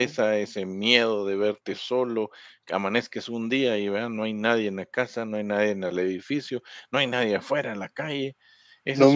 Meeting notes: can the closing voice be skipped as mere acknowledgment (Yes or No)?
No